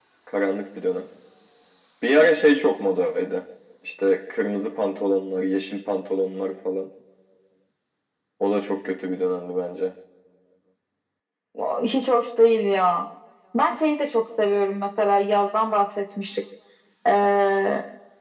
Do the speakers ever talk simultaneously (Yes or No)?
No